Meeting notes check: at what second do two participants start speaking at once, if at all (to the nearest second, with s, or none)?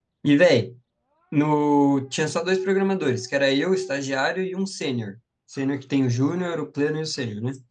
none